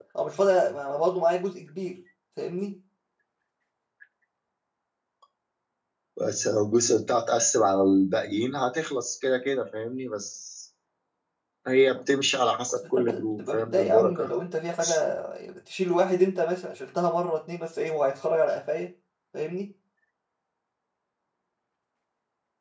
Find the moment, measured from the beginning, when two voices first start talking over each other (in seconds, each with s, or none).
13.0 s